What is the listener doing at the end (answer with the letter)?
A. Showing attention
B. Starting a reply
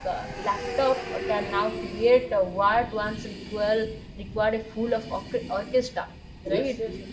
A